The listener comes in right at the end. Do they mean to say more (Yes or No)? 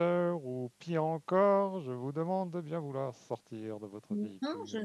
Yes